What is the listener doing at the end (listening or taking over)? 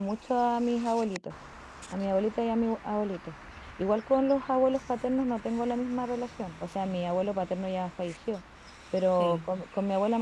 listening